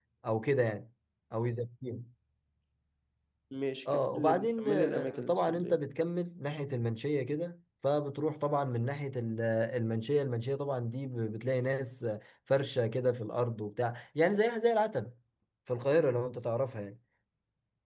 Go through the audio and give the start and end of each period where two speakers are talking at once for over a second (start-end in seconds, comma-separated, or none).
3.9-5.8